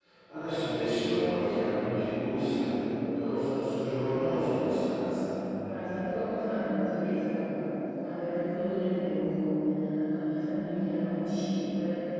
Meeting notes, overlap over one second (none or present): none